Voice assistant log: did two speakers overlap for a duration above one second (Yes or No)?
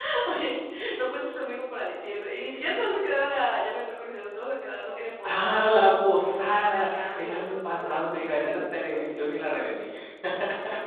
Yes